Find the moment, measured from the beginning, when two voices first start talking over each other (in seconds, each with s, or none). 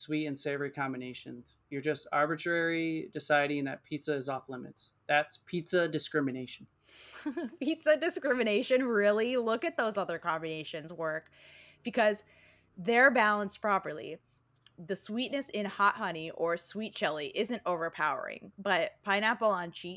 none